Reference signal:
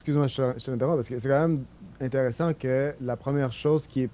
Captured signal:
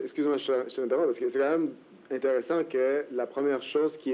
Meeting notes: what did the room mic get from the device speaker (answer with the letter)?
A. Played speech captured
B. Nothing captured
A